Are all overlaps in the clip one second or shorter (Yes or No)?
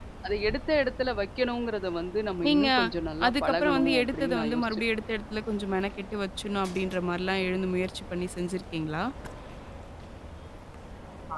No